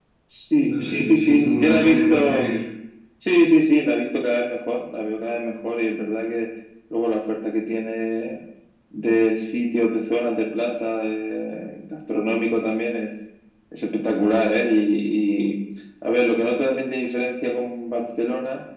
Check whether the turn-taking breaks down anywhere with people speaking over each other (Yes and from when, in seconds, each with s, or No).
Yes, from 0.7 s